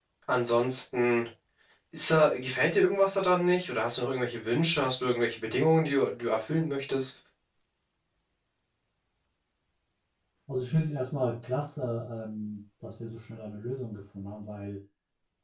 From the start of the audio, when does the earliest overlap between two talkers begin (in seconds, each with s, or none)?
none